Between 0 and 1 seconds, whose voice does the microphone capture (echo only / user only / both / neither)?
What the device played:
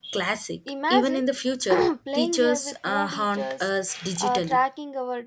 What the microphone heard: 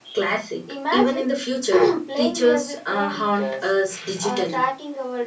echo only